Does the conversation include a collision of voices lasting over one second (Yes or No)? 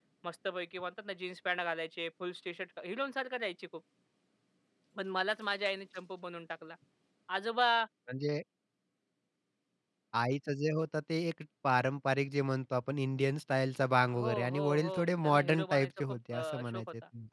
Yes